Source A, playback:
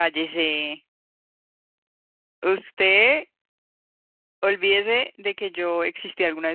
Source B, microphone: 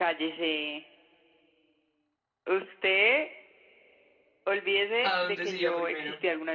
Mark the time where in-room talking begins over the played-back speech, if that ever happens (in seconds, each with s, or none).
5.0 s